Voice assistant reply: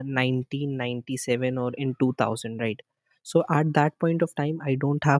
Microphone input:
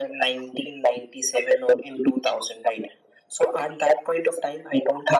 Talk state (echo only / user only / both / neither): echo only